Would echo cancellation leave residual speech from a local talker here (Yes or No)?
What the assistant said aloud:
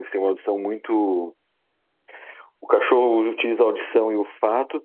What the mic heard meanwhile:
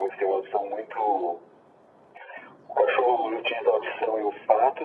No